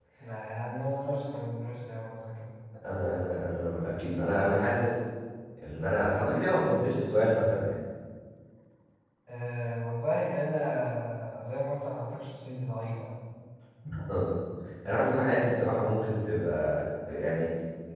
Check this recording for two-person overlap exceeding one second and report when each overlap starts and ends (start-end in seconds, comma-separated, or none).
none